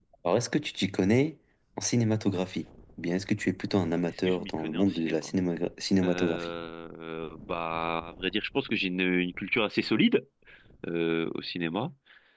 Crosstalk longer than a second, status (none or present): present